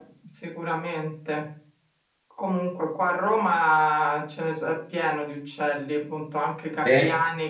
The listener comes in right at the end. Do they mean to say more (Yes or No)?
No